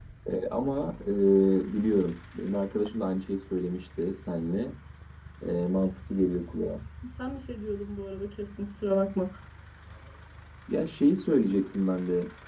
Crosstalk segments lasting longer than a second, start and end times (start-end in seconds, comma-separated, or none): none